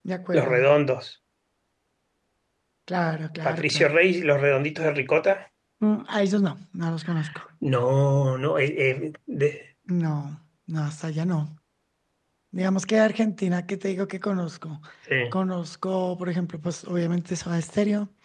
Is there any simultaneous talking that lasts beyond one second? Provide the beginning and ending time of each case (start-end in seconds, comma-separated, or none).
none